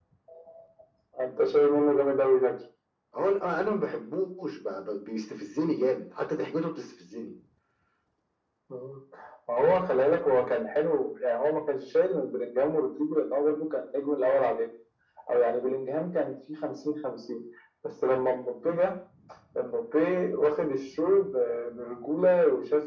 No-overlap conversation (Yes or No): Yes